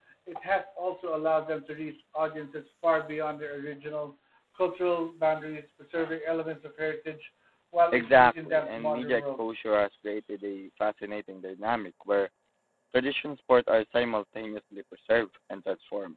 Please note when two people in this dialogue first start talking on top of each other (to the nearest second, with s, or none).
8 s